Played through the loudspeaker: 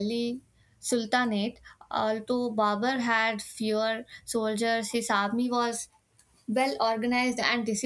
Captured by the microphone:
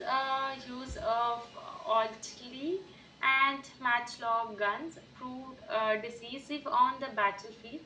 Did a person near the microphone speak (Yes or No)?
Yes